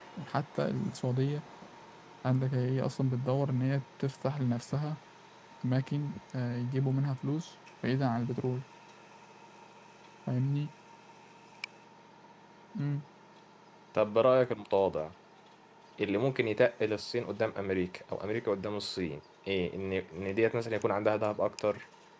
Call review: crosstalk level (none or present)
none